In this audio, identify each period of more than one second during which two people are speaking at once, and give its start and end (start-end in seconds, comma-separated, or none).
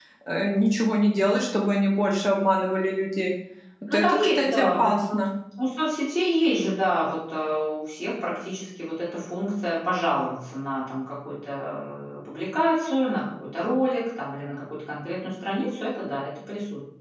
3.9-5.2